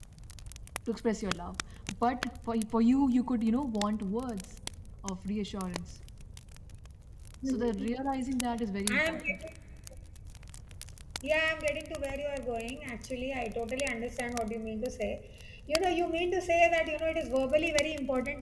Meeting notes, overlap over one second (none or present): none